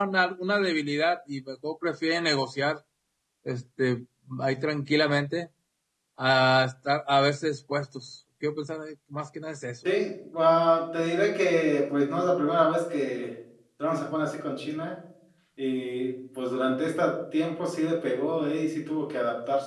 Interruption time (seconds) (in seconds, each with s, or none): none